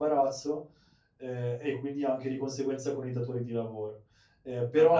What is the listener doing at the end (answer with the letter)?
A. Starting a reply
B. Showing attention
B